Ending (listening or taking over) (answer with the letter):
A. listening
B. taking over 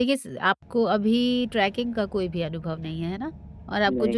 A